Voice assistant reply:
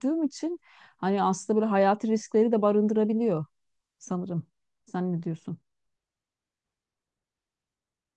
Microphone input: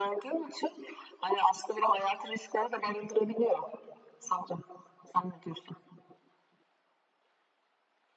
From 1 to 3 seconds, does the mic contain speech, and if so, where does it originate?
echo only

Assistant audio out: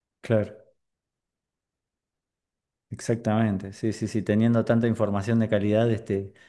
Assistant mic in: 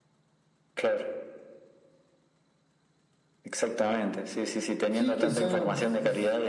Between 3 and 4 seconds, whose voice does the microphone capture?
echo only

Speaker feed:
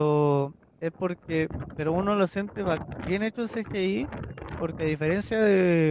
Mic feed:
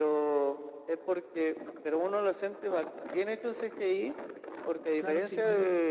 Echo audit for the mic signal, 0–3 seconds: echo only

